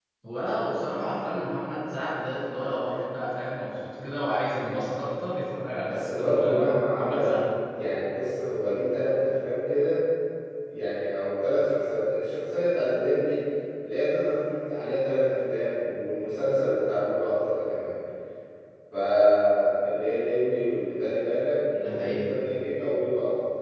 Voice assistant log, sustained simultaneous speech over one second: present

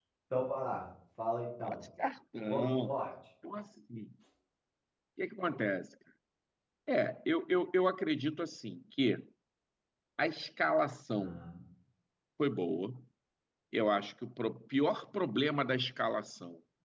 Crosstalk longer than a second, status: none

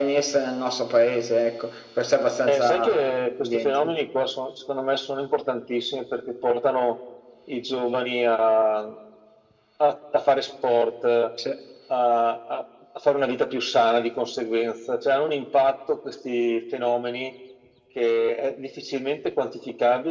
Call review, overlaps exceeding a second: present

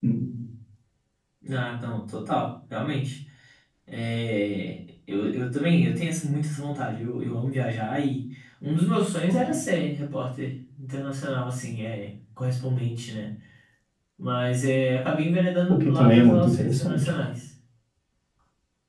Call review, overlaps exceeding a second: present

